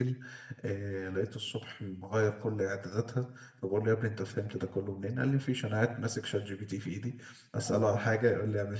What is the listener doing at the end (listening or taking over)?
listening